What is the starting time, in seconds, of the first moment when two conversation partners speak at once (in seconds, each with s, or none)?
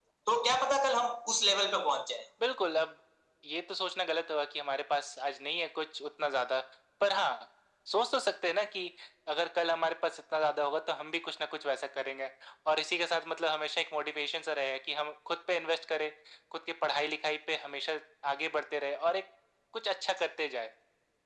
none